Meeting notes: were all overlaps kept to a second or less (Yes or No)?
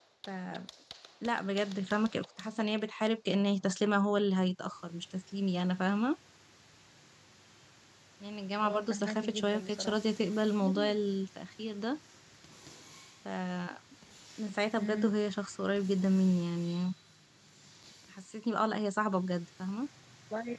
No